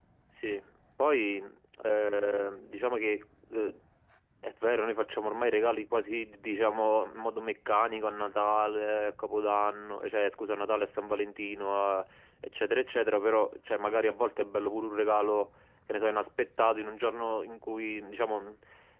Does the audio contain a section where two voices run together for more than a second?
No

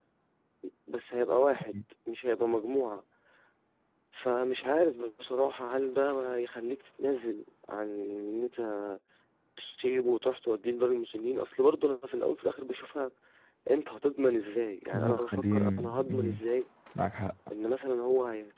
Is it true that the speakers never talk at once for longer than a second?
No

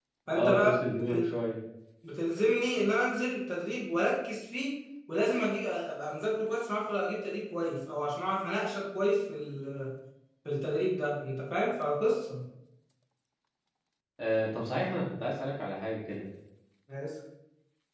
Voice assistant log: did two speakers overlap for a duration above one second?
No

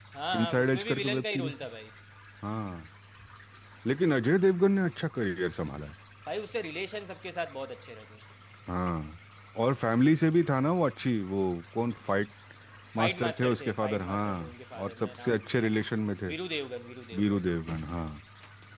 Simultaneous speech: Yes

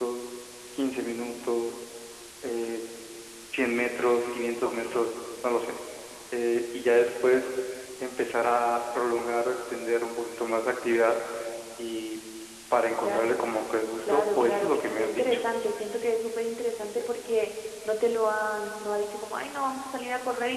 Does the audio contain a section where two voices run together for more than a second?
Yes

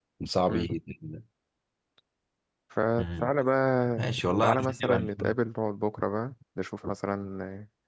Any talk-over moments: Yes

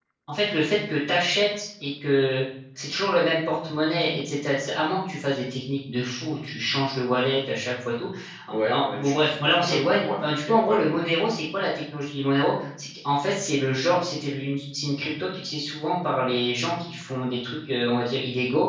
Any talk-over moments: Yes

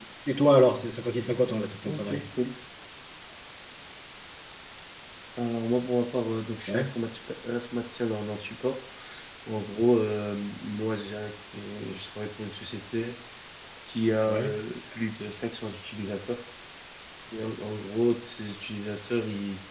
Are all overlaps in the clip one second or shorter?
Yes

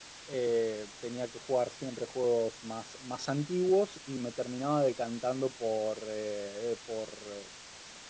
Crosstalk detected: No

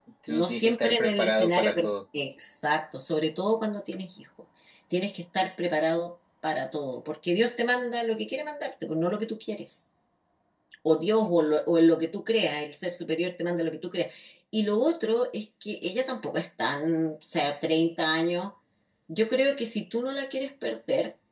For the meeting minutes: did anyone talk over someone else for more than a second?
Yes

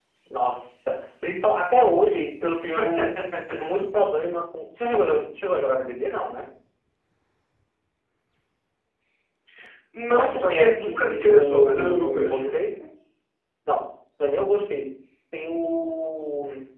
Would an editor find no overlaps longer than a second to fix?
No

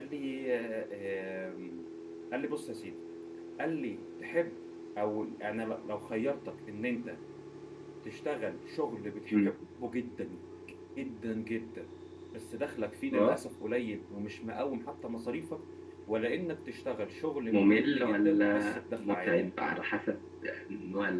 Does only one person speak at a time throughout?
No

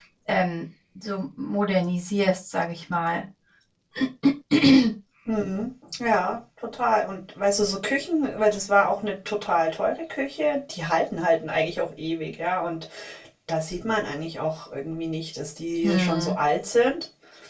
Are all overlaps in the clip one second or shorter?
Yes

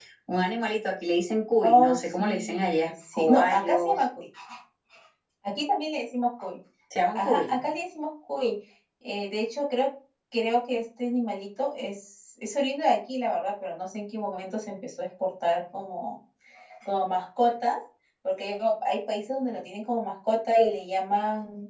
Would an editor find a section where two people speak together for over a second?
Yes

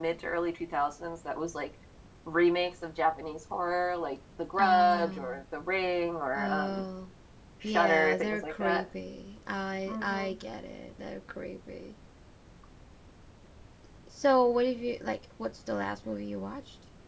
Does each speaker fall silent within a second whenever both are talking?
No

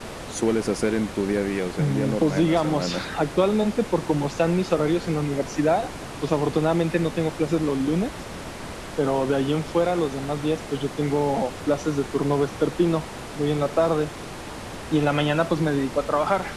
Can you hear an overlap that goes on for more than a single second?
Yes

